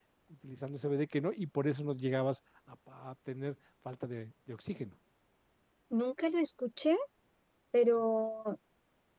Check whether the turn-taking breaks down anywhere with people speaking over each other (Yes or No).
No